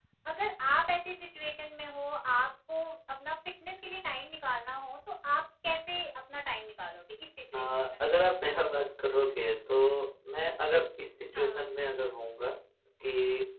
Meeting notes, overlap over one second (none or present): none